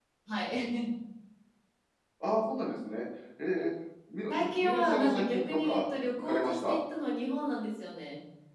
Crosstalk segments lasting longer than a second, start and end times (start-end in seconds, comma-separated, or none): 4.3-6.8